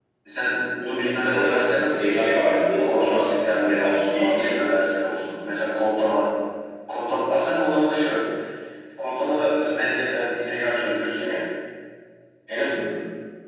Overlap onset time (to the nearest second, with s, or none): 1 s